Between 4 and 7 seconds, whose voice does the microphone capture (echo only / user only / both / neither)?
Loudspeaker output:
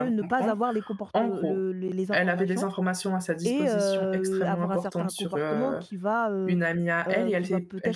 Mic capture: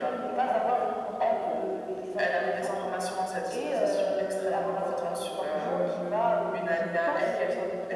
both